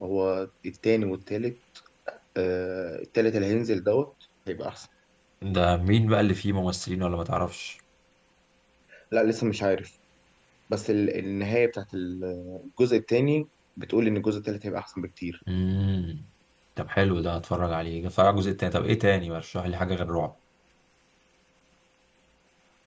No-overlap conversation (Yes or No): Yes